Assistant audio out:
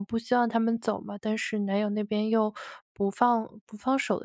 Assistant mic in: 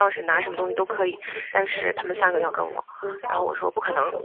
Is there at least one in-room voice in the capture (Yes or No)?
Yes